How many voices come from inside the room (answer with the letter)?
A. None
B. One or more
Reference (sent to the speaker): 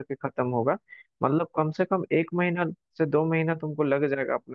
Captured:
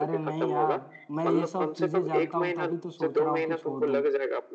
B